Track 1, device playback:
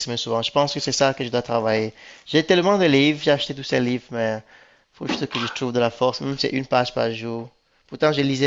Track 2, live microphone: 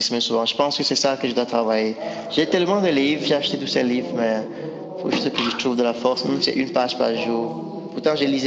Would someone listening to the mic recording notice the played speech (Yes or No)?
Yes